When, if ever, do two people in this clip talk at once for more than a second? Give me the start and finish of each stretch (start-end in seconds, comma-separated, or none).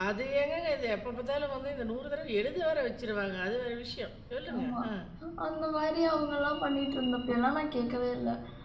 none